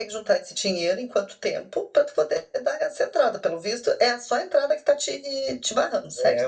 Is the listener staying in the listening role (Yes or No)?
No